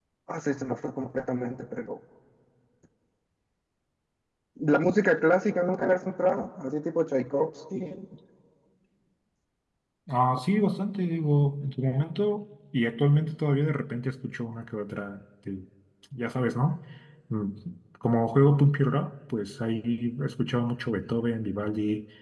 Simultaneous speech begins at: none

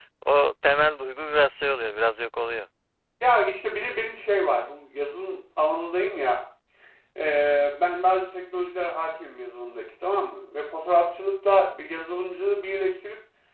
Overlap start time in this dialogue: none

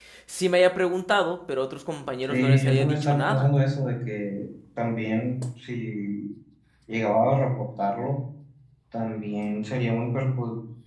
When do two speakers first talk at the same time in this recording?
2.2 s

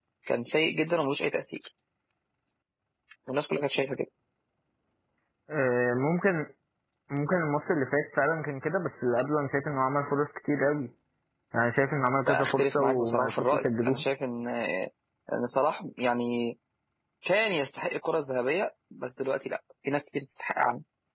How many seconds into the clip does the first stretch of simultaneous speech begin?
12.3 s

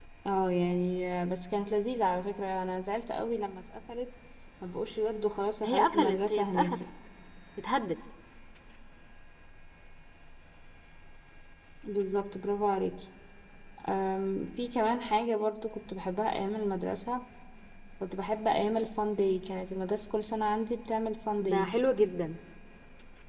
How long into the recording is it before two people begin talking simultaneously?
5.6 s

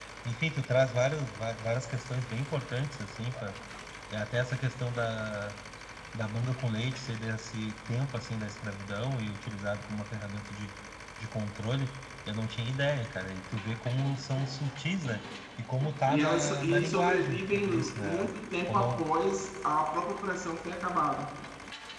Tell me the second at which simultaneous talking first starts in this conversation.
16.1 s

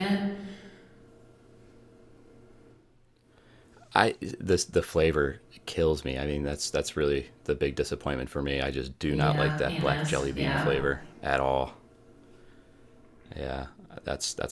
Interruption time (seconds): 9.1 s

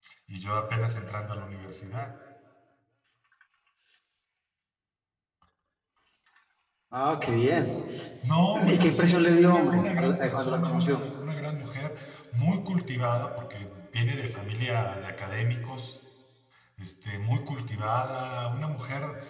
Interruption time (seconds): 8.5 s

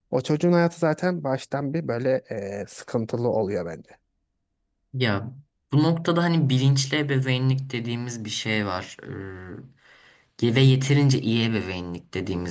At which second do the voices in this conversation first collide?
none

